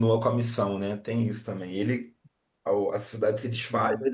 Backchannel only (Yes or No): Yes